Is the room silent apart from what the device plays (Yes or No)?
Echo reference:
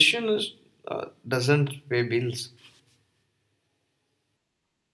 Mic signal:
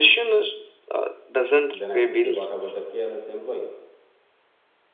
No